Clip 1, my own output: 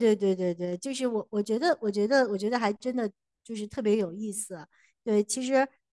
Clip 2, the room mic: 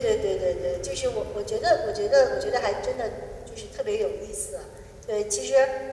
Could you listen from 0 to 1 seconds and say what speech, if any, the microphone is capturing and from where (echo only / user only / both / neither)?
echo only